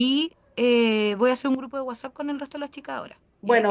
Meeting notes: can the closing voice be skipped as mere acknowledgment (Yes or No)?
No